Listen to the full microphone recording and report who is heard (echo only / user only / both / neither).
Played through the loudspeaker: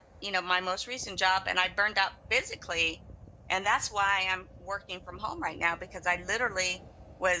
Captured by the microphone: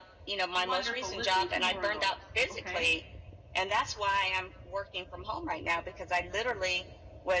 both